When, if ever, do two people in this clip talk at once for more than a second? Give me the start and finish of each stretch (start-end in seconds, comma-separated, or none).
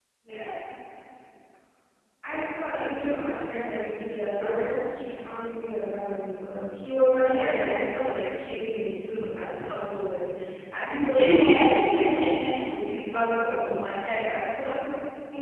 11.1-12.5